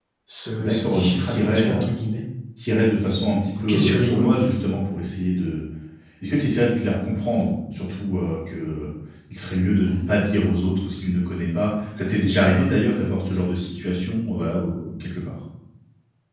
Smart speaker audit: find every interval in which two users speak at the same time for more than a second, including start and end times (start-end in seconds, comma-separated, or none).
0.6-1.8